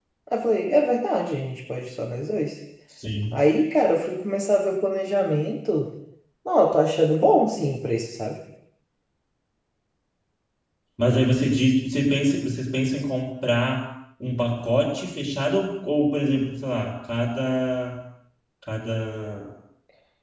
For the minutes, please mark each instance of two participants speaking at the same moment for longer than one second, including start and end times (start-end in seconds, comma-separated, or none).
none